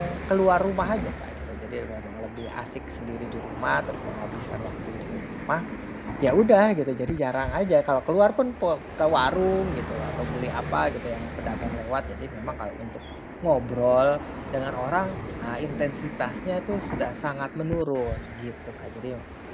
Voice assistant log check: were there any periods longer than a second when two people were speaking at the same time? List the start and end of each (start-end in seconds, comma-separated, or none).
none